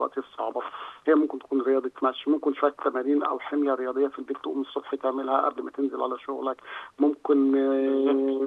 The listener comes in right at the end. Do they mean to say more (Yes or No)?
No